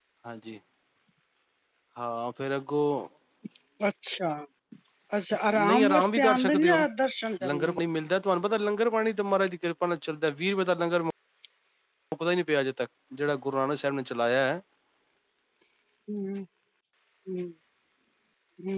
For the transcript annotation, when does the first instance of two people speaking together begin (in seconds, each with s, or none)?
5.6 s